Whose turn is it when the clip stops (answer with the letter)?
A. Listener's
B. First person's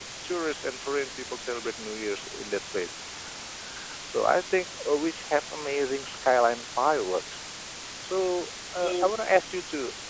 B